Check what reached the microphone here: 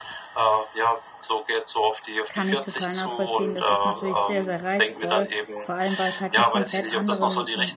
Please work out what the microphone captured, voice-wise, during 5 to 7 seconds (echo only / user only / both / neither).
both